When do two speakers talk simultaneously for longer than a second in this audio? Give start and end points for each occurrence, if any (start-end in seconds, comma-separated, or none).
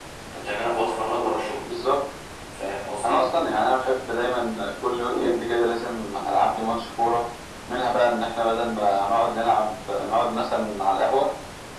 none